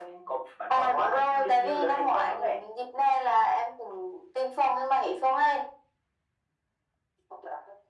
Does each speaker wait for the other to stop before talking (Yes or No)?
No